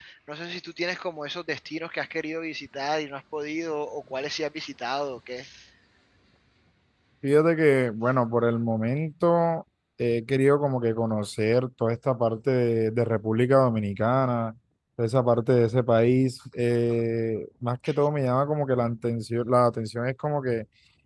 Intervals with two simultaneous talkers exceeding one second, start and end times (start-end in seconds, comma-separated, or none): none